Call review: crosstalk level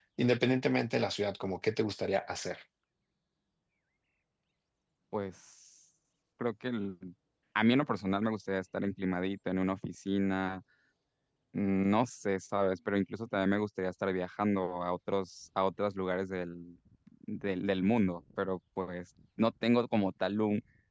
none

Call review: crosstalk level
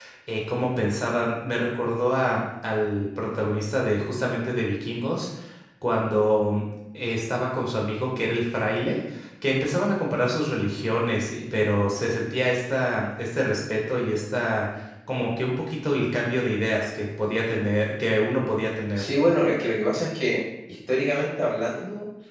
none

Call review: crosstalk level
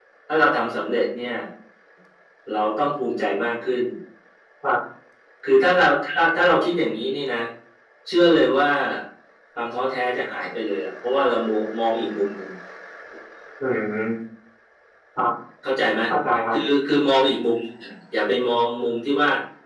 none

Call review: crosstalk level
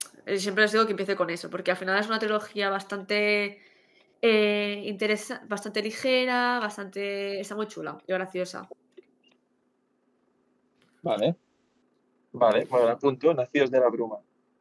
none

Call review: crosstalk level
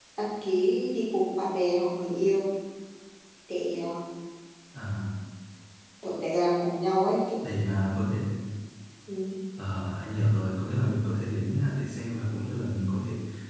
none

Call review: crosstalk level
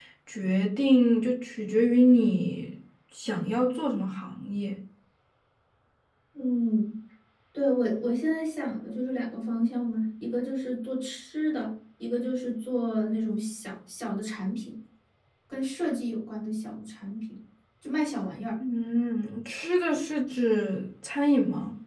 none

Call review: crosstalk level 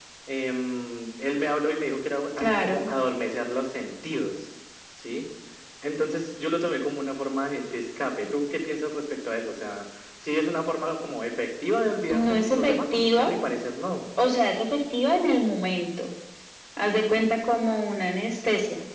present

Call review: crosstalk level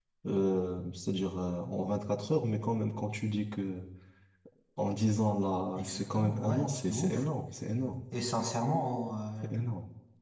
present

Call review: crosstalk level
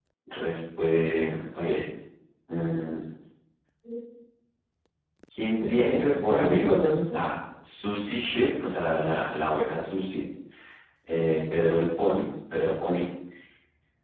present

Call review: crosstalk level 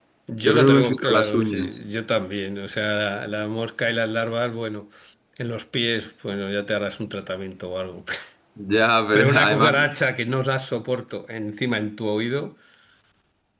present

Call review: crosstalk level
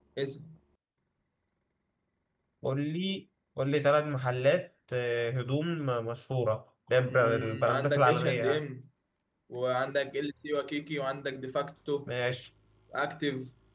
present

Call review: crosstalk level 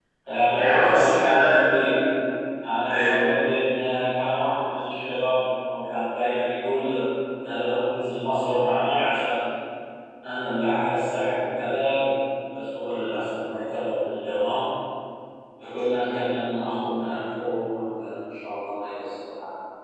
present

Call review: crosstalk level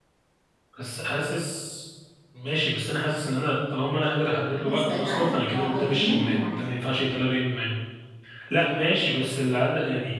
present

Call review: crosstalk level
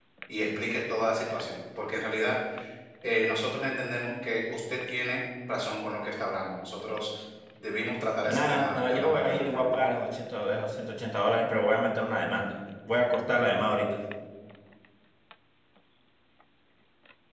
present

